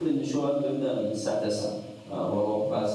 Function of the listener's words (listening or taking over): listening